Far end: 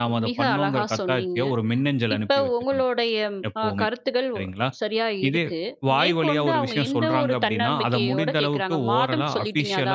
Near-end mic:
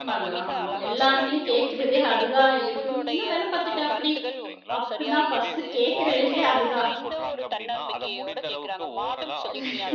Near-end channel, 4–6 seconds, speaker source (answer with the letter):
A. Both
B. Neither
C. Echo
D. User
A